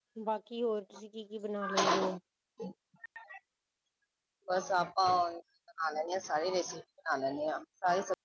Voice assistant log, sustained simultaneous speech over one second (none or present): none